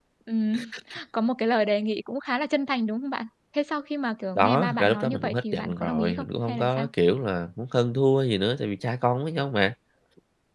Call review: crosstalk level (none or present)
present